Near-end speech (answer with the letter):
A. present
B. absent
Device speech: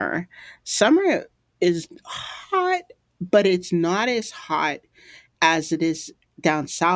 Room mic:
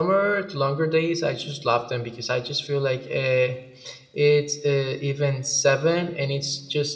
A